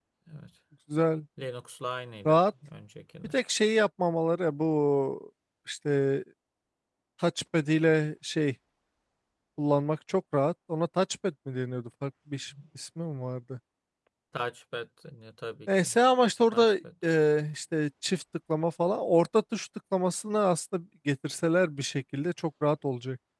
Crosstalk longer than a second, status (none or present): none